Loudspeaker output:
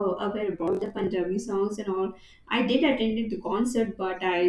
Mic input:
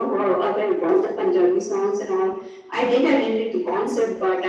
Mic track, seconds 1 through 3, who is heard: echo only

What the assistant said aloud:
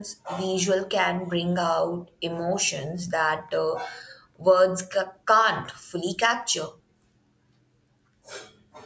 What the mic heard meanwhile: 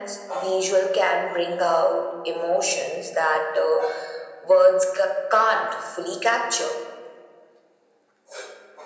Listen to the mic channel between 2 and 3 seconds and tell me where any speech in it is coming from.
echo only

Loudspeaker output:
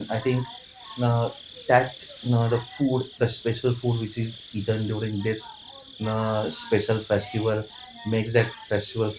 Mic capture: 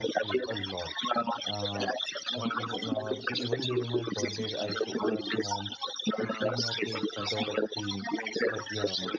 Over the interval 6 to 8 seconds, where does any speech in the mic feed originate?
both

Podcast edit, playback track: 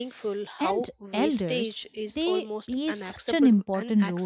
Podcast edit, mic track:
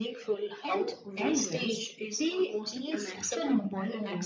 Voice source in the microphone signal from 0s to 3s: echo only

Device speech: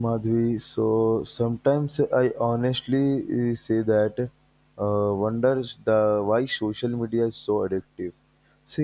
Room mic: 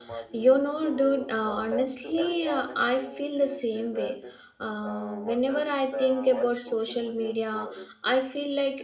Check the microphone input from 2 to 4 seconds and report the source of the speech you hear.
both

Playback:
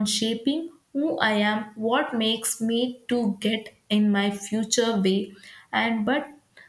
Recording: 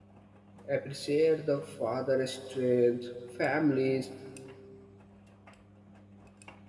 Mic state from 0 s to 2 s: user only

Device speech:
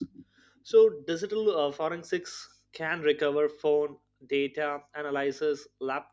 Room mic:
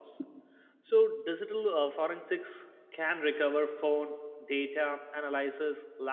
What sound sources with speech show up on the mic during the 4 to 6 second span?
echo only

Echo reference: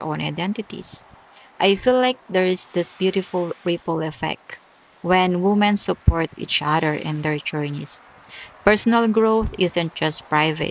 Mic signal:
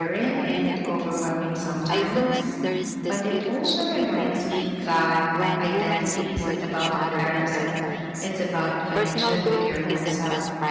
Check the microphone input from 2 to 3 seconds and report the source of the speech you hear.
both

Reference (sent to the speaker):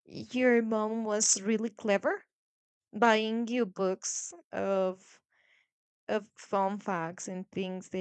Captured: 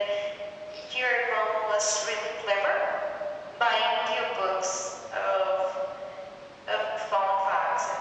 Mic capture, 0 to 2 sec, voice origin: echo only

